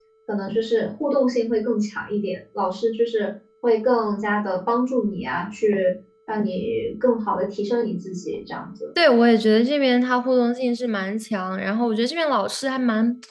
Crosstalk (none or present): none